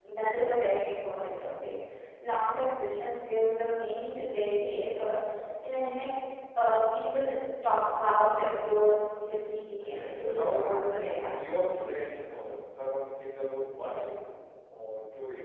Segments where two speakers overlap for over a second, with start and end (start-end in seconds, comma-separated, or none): 9.8-11.3